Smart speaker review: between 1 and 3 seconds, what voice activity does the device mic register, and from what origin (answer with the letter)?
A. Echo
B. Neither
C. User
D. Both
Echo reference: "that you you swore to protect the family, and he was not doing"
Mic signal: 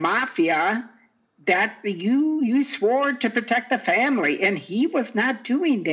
A